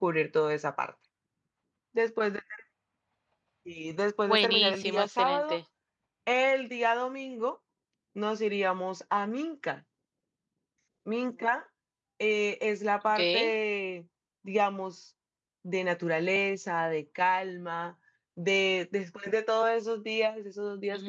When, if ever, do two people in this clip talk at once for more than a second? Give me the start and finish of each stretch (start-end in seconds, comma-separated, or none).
4.3-5.6